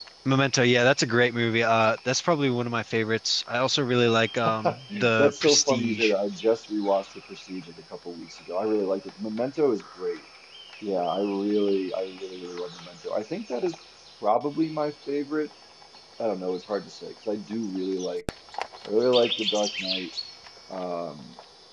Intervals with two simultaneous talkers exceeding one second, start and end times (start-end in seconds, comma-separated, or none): 4.6-6.1